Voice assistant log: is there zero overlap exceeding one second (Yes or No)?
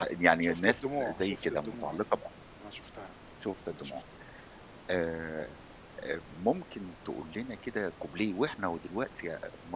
No